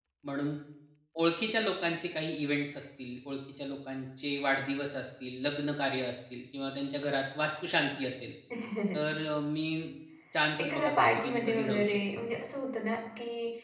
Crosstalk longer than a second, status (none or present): present